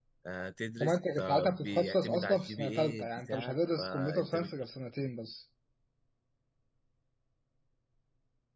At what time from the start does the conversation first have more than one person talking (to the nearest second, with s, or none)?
1 s